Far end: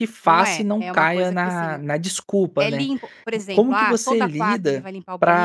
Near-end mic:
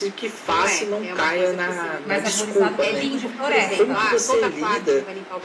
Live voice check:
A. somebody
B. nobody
A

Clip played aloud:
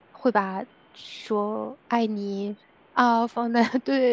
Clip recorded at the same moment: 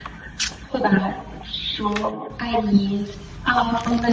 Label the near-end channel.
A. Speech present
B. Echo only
B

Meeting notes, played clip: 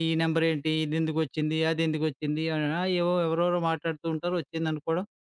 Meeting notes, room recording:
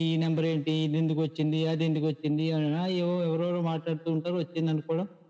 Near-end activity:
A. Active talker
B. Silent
B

